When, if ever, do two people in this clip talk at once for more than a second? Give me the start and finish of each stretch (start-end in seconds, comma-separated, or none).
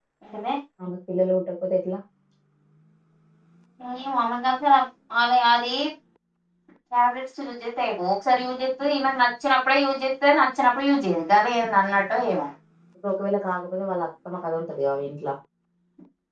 none